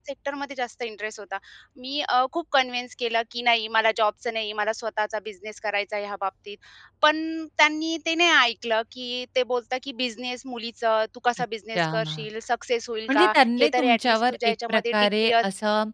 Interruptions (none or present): present